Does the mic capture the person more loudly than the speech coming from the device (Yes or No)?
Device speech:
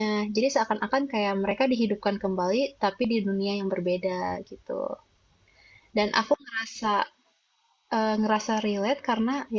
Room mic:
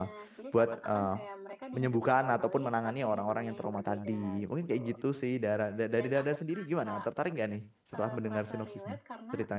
Yes